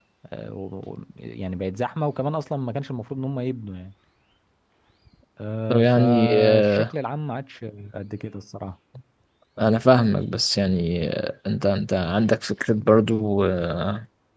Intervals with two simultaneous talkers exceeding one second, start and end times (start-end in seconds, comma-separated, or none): 5.7-6.9